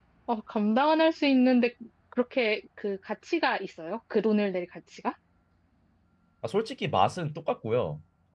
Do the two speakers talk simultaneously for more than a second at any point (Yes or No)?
No